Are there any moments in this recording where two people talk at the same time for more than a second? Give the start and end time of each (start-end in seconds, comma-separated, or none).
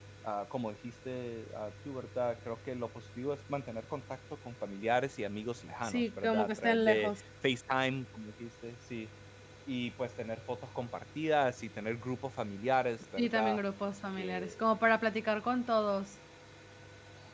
5.8-7.1